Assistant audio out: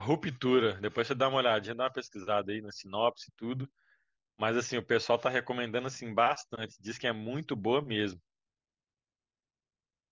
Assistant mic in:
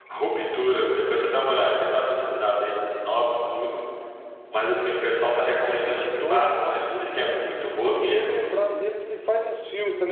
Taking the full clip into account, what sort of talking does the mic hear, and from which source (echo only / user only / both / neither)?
both